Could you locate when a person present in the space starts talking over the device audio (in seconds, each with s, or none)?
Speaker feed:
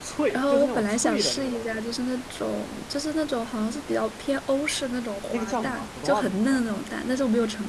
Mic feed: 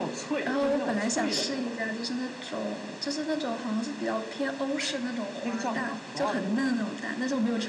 none